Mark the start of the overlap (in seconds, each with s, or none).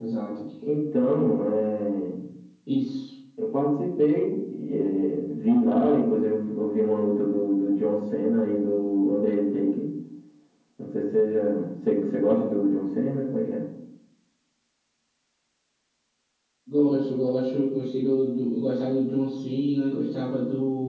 none